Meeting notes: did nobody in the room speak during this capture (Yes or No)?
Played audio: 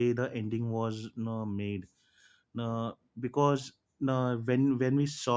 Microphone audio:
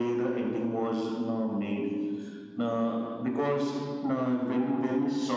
Yes